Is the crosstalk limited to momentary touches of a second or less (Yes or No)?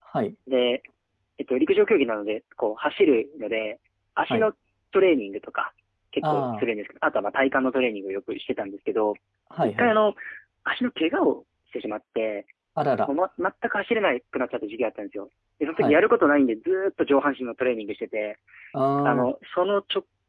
Yes